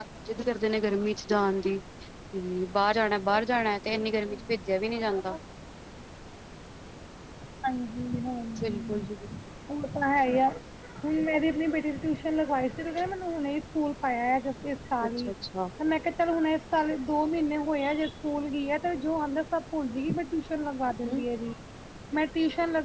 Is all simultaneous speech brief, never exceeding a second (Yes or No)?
Yes